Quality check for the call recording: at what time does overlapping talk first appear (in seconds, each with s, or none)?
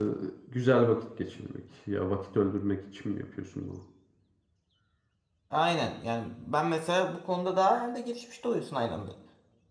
none